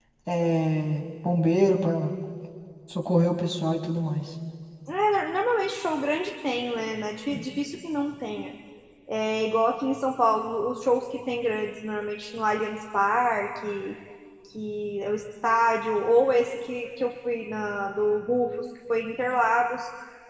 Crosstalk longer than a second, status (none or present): none